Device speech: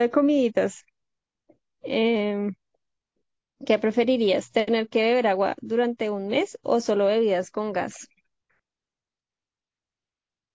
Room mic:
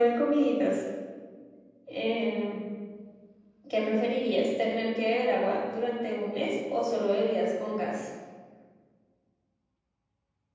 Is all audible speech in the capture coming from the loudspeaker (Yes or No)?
Yes